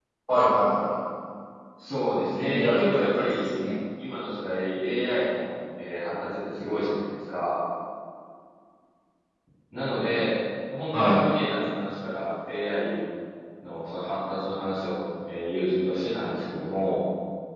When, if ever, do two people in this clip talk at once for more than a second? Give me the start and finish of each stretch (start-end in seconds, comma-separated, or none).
2.3-3.5